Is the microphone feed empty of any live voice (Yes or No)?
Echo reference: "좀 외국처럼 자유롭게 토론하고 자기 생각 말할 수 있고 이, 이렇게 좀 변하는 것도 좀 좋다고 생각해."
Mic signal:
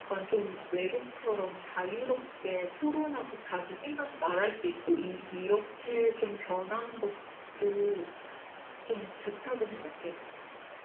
Yes